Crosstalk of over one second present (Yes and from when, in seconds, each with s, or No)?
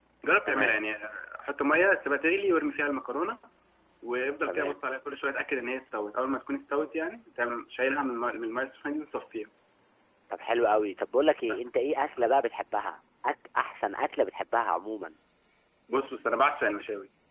No